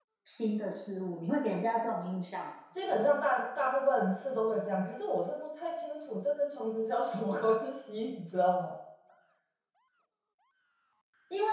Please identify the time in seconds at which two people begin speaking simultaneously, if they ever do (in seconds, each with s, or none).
none